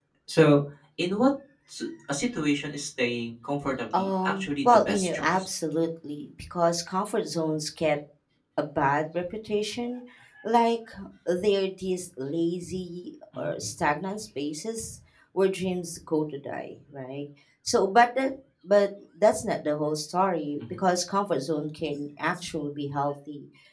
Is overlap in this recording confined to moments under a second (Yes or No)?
No